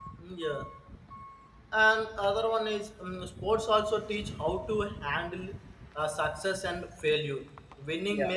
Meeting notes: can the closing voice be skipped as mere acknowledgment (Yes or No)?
Yes